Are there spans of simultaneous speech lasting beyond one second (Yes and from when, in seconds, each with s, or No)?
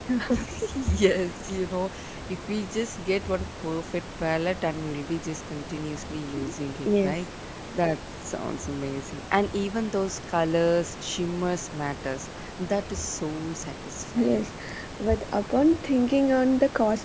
No